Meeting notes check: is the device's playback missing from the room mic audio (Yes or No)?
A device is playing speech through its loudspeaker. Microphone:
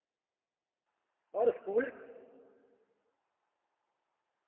Yes